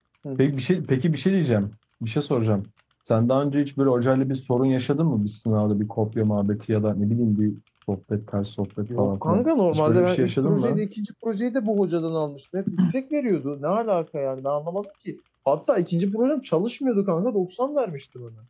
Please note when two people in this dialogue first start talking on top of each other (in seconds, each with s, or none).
8.9 s